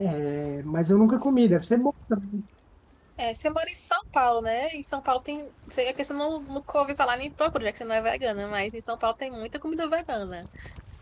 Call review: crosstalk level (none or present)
none